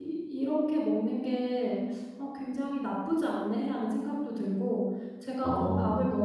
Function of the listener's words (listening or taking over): listening